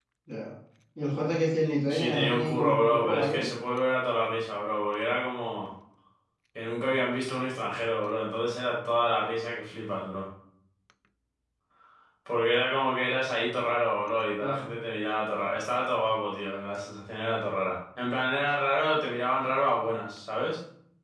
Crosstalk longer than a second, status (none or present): present